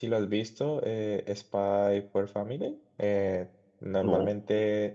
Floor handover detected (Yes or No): No